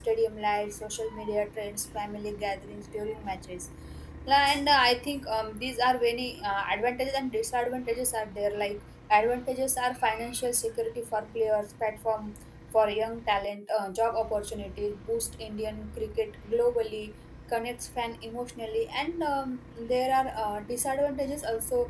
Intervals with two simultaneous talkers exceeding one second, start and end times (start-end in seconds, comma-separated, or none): none